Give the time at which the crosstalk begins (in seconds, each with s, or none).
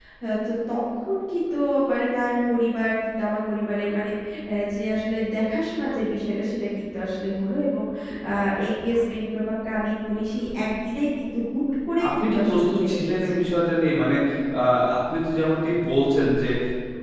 12.0 s